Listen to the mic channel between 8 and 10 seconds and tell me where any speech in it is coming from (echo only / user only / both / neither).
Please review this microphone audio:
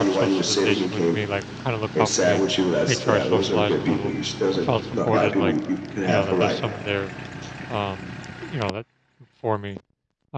user only